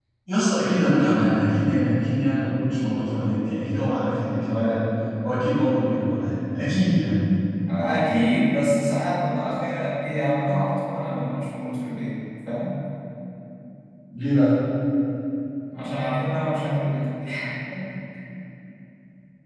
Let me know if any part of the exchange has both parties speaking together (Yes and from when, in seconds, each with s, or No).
No